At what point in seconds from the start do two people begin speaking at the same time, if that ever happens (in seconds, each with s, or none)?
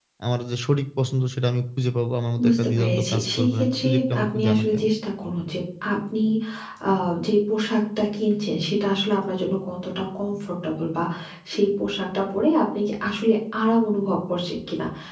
2.4 s